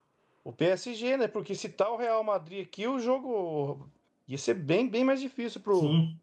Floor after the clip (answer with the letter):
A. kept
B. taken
B